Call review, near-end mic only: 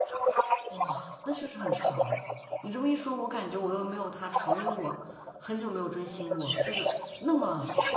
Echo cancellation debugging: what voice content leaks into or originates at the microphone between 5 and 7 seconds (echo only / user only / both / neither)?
both